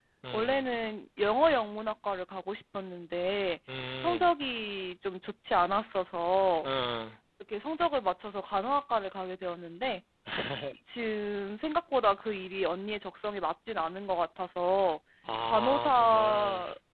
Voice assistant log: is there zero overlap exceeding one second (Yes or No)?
No